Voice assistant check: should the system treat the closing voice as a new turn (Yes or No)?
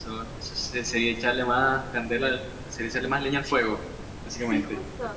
Yes